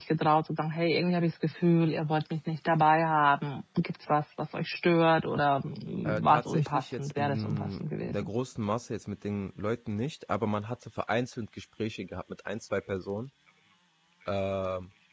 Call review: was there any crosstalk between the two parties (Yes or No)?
Yes